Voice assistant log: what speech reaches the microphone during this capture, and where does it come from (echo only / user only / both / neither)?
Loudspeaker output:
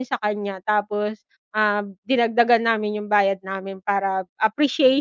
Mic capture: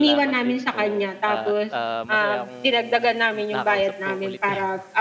both